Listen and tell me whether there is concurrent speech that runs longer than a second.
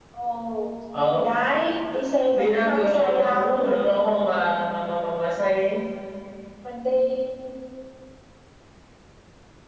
Yes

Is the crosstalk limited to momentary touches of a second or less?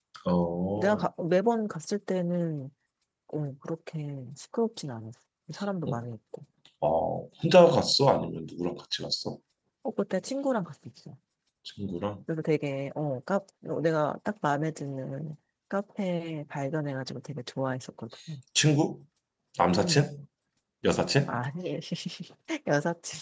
Yes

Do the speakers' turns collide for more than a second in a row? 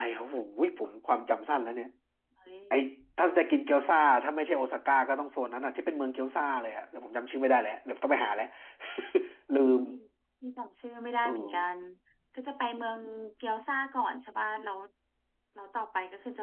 No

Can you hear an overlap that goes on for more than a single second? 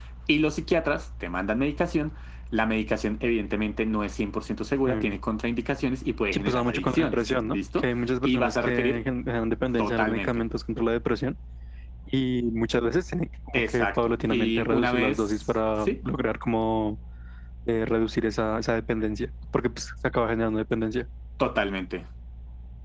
Yes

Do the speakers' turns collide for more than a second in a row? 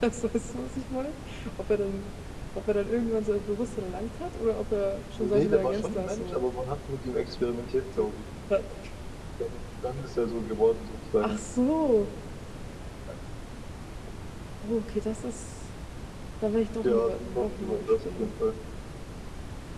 Yes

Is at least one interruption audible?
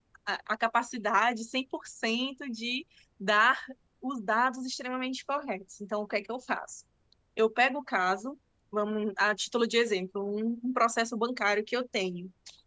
No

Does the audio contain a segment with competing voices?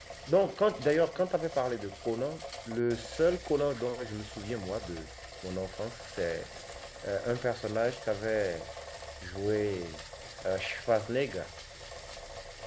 No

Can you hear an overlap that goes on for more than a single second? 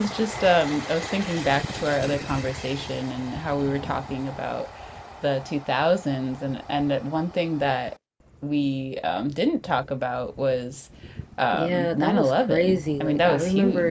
Yes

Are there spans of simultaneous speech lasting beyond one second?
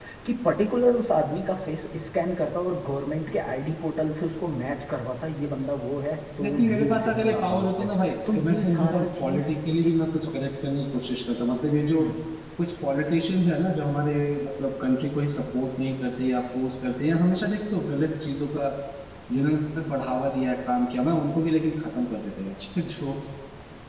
Yes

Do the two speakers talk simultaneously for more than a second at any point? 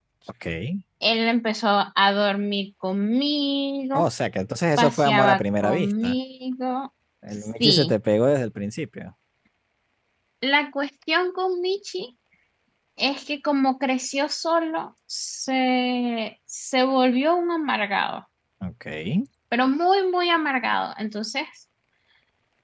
Yes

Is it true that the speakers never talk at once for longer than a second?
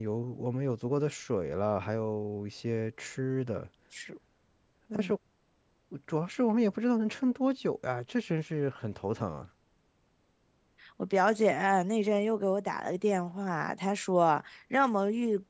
Yes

